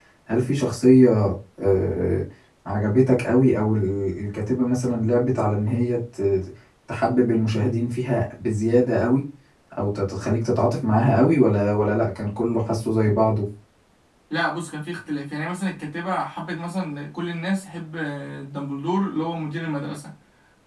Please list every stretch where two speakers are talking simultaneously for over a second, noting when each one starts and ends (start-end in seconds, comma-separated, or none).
none